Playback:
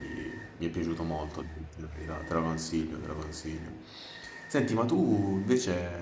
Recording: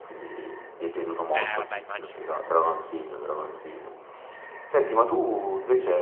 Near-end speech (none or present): present